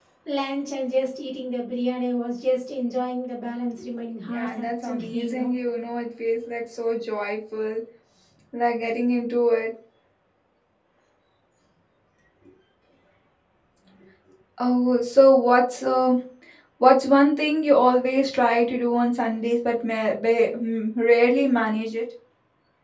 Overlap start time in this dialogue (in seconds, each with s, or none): 4.3 s